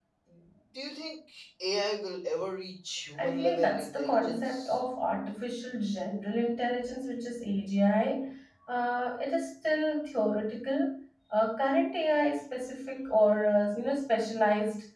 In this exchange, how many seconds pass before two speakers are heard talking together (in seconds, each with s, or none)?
3.2 s